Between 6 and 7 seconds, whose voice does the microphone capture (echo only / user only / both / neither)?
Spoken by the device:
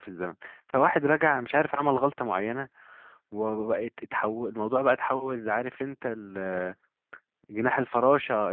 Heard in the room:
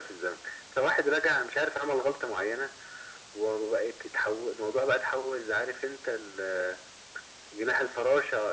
echo only